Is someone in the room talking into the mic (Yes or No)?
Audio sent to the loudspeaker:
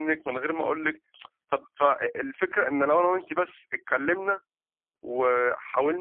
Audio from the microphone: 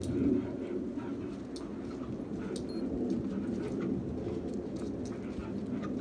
No